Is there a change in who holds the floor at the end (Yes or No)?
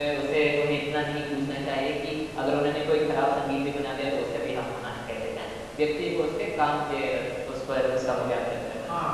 Yes